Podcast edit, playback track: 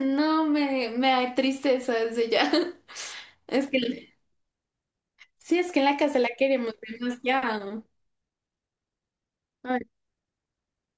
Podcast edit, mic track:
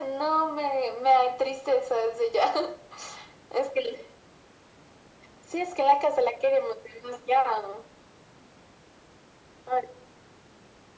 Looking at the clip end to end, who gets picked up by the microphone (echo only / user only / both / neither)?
echo only